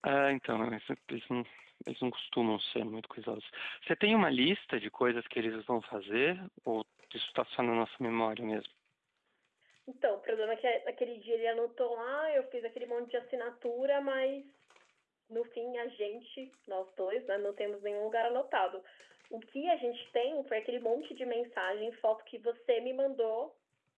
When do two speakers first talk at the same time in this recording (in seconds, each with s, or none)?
none